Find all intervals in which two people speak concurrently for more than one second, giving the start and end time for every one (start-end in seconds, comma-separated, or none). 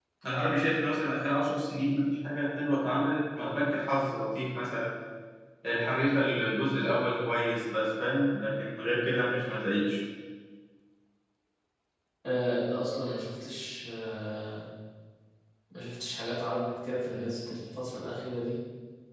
none